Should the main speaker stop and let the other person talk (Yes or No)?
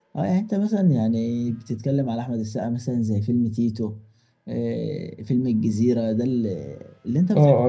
Yes